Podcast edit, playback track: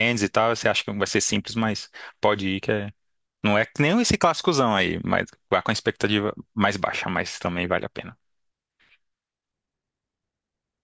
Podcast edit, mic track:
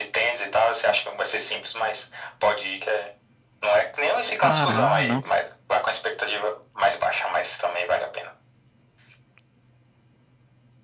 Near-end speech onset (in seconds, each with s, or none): 4.3 s